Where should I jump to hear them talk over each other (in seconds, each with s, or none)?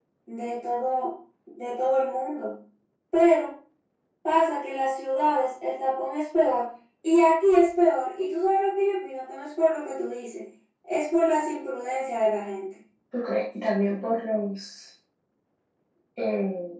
none